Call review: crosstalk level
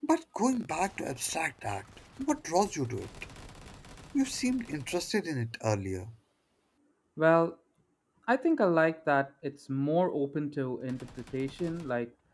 none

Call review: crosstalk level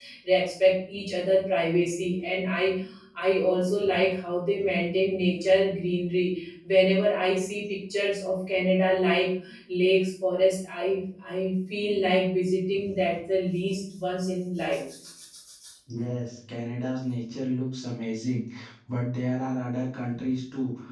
none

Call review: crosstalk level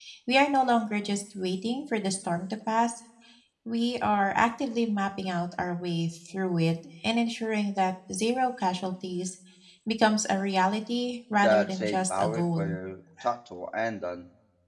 present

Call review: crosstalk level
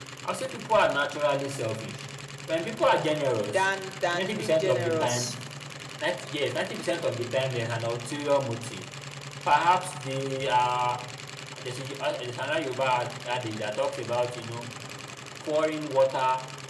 present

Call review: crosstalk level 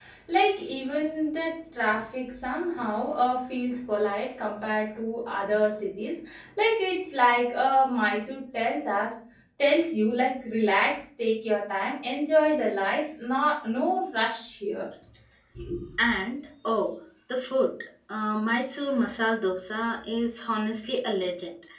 none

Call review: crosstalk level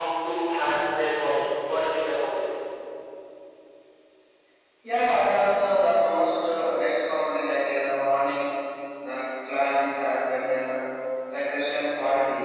none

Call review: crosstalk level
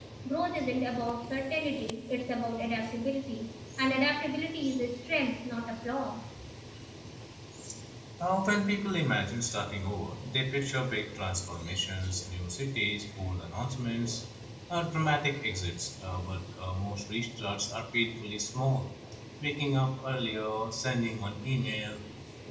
none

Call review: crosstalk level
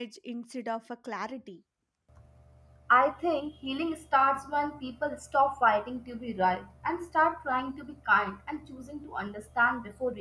none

